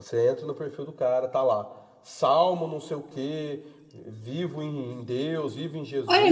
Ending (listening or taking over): taking over